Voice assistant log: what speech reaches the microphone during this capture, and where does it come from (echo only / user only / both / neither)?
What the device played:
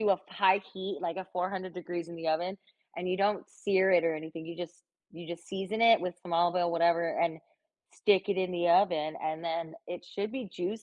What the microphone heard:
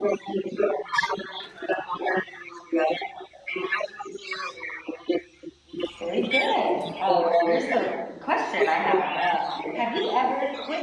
both